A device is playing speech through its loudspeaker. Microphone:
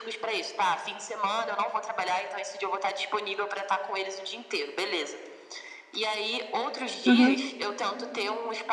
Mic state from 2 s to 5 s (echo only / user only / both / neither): echo only